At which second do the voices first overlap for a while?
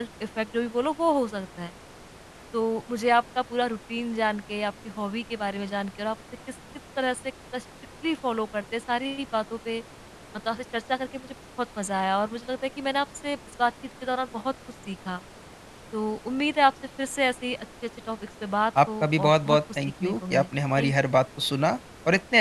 18.8 s

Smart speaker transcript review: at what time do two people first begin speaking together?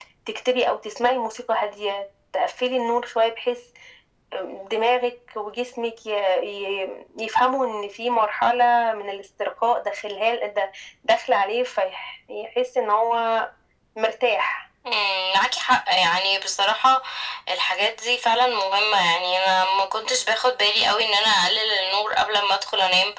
none

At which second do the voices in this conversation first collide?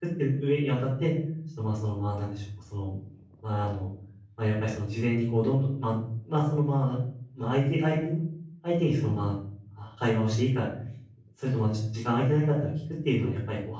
none

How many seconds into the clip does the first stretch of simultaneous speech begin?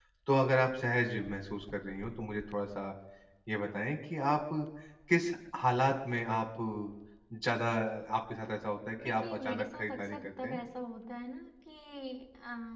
9.0 s

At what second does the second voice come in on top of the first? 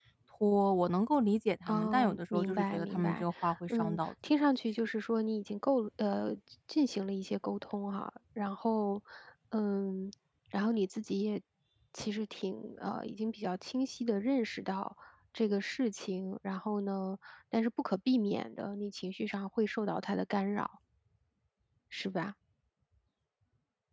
1.7 s

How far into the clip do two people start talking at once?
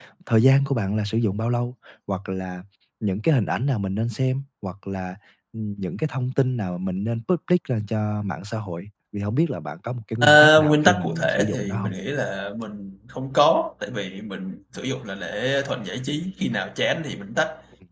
10.2 s

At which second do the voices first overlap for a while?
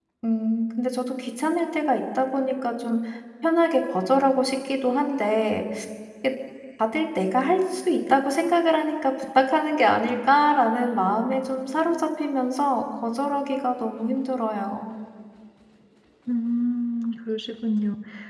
none

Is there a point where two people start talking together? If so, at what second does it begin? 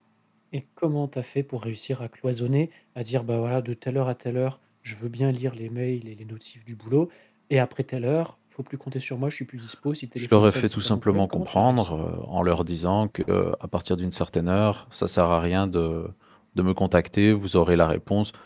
10.2 s

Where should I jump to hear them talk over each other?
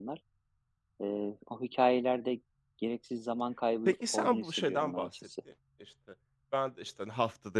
3.8 s

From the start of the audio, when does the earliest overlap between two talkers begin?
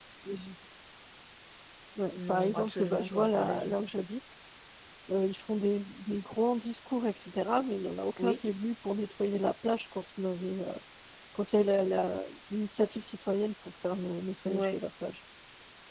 2.1 s

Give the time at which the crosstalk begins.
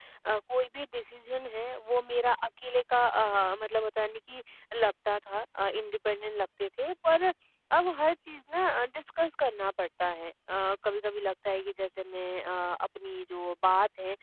none

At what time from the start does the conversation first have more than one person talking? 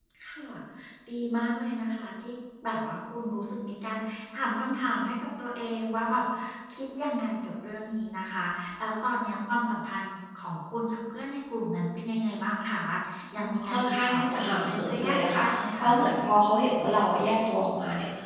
13.4 s

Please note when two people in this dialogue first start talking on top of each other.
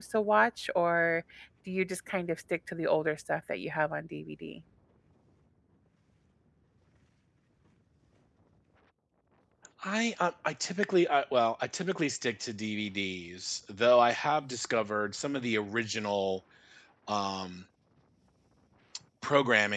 none

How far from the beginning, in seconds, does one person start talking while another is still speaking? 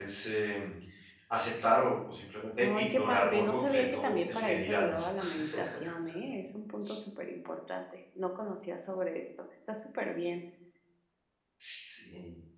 2.6 s

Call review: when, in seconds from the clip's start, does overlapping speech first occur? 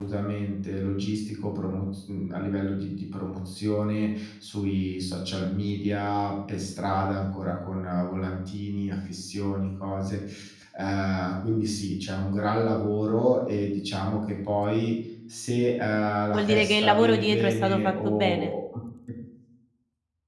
16.3 s

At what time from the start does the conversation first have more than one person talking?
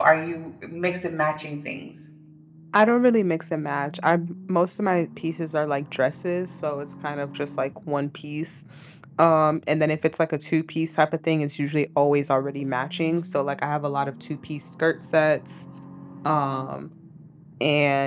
none

